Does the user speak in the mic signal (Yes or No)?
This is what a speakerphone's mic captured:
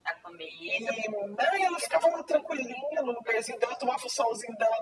No